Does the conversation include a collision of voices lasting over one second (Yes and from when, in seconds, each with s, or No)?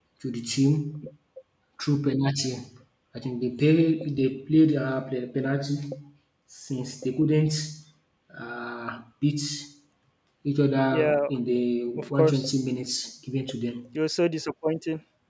No